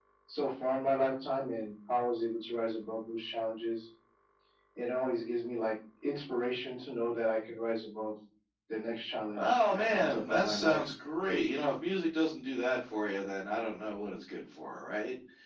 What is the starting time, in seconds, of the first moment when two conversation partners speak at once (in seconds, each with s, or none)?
9.3 s